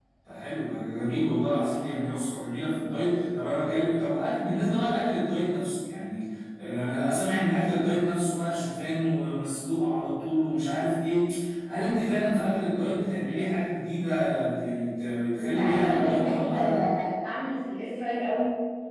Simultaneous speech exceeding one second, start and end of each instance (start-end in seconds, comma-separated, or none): 15.4-16.8